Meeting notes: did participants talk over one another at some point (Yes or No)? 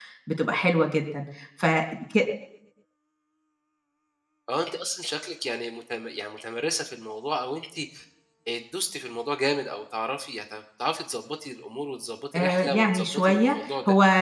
Yes